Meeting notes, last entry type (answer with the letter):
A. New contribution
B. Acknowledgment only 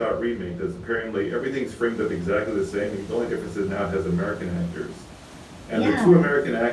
B